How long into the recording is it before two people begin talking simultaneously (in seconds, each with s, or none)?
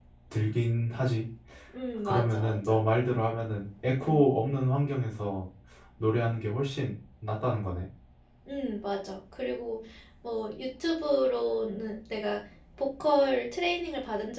2.0 s